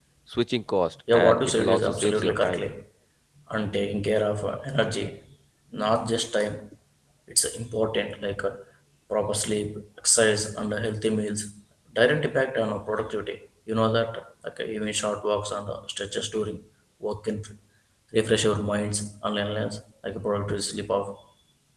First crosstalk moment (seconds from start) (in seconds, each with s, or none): 1.1 s